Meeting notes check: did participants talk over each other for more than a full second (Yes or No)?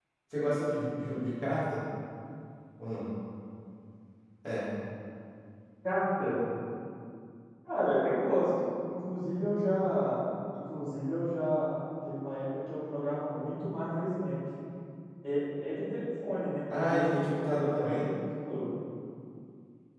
Yes